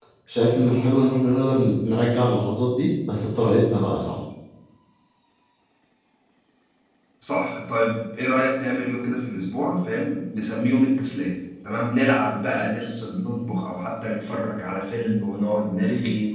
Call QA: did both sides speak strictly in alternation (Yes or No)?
Yes